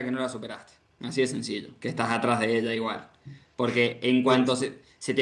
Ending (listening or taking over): listening